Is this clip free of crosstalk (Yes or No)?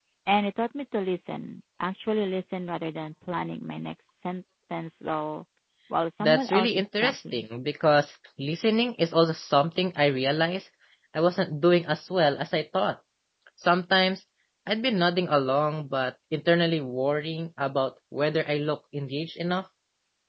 No